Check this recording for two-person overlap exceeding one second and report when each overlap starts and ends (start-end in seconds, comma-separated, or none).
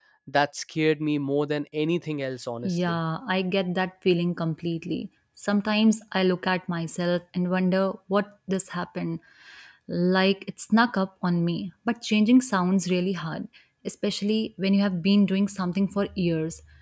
none